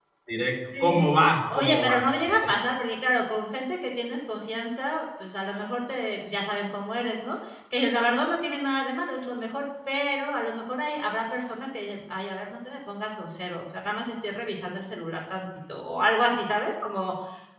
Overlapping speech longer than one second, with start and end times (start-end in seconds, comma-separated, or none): 0.8-2.0